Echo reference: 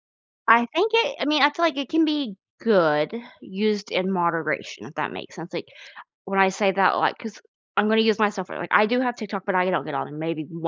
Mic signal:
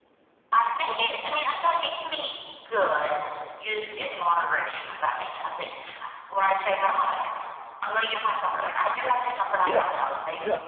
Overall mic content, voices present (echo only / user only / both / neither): both